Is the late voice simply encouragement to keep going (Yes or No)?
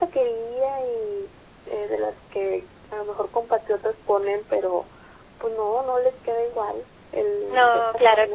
No